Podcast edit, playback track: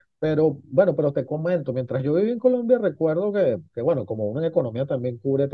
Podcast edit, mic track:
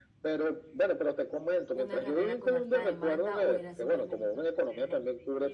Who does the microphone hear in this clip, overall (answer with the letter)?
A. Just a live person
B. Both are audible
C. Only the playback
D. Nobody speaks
B